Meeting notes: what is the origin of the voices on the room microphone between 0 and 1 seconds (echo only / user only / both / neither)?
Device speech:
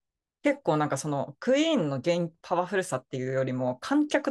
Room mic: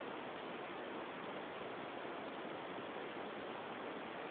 neither